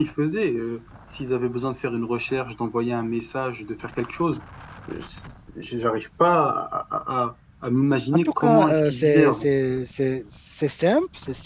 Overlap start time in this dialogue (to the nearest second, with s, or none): 8 s